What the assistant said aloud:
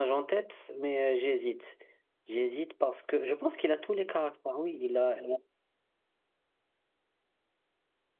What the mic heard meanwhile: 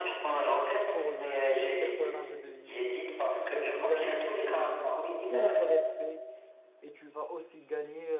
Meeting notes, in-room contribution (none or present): present